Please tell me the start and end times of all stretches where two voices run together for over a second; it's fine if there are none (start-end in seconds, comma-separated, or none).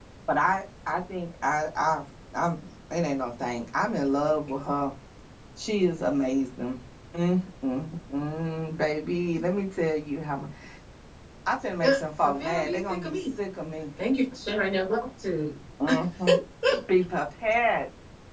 11.8-13.2